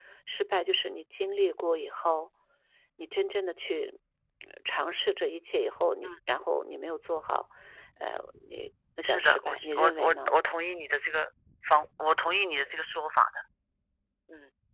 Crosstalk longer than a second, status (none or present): present